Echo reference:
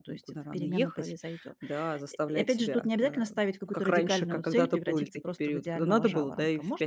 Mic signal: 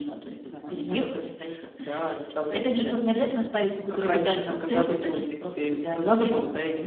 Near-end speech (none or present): none